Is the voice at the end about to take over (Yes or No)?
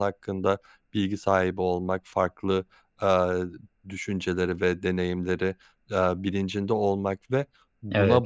No